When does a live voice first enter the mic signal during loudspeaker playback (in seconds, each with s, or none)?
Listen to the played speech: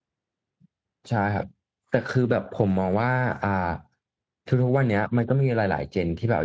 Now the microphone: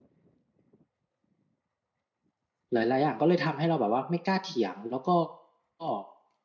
2.7 s